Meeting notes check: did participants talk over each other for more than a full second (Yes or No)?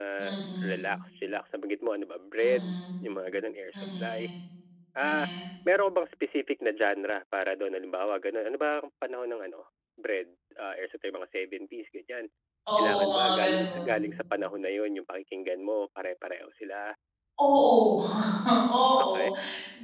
Yes